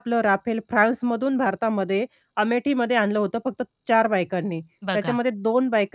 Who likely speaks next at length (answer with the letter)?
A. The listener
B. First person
B